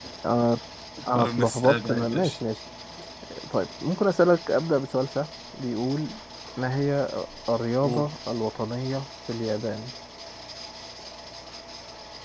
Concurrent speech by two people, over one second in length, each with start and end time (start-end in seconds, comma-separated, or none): 1.2-2.4